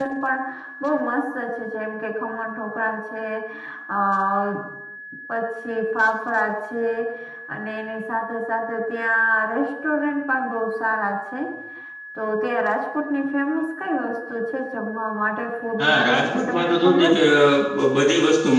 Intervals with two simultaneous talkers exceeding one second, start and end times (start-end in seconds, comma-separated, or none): 15.8-17.2